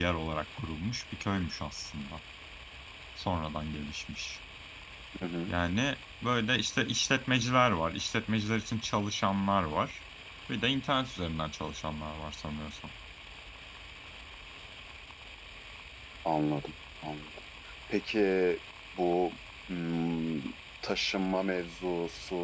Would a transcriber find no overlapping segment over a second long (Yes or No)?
Yes